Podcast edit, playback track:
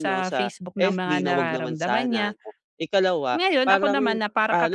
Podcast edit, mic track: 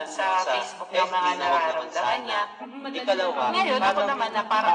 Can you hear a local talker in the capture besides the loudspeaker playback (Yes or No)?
Yes